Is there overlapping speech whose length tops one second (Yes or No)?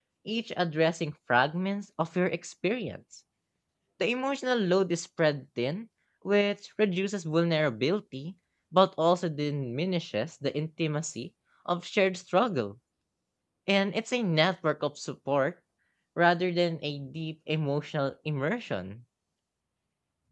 No